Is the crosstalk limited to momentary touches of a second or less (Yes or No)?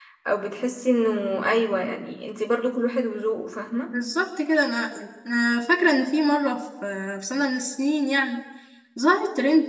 Yes